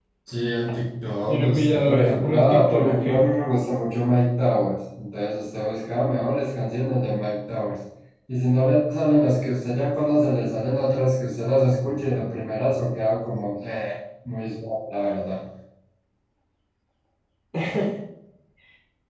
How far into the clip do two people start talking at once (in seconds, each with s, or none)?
1.3 s